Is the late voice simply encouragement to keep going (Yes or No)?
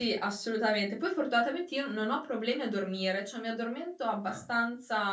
Yes